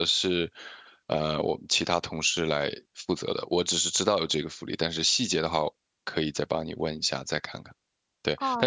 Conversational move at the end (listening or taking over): taking over